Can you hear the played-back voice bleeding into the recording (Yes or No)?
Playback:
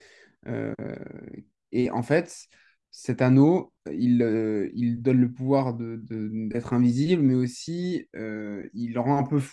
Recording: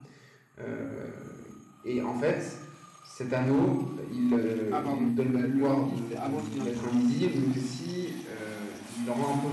Yes